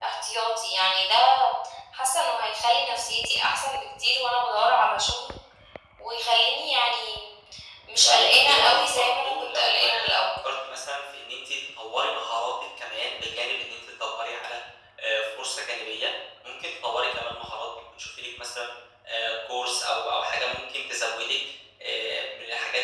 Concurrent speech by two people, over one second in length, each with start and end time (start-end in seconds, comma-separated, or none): 8.1-10.1